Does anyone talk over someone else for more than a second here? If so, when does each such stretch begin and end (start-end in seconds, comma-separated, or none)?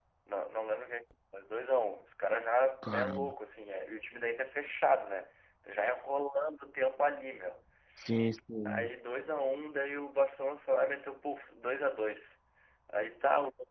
none